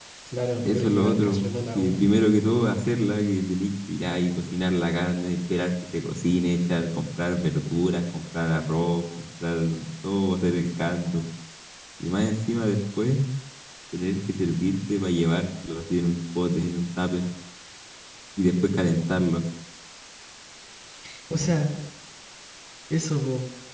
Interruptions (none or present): present